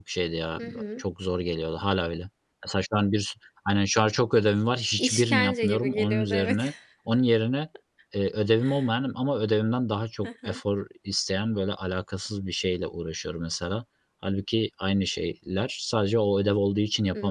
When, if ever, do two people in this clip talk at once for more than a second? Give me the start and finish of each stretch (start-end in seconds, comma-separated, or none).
5.0-6.6